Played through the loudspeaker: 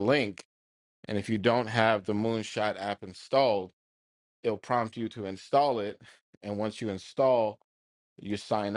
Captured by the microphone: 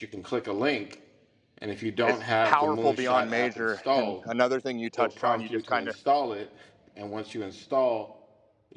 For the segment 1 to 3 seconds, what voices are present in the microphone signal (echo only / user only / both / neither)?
both